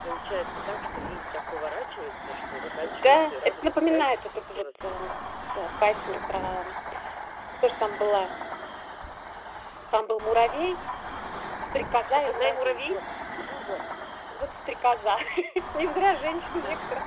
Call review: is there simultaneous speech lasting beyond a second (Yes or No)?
Yes